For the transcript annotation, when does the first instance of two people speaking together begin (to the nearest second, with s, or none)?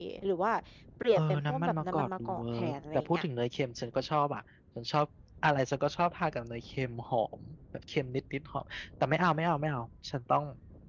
1 s